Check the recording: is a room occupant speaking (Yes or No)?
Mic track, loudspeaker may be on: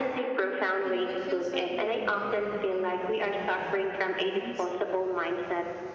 Yes